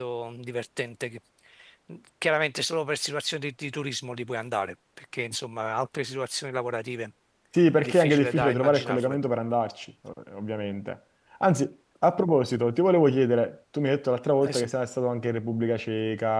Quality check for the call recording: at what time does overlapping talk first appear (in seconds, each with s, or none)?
7.8 s